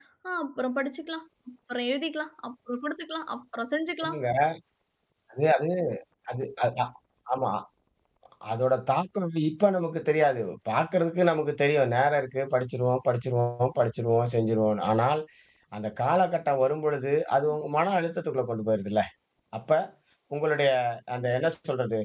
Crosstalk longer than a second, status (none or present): none